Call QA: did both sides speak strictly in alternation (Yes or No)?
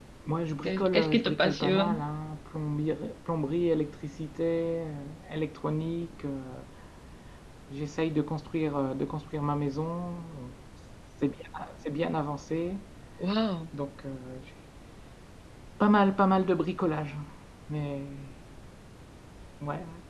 No